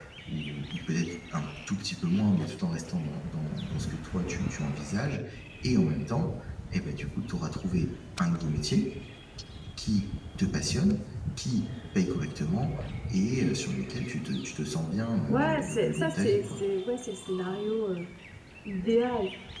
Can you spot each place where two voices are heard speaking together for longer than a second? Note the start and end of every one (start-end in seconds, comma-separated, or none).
15.3-16.6